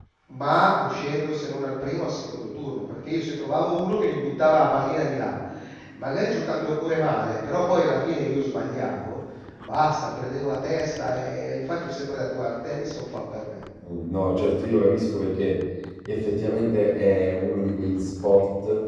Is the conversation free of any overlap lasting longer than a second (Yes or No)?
Yes